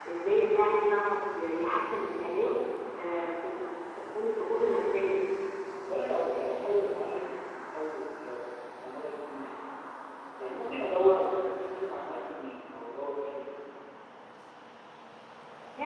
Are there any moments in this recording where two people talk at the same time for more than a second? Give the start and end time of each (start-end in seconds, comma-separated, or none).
none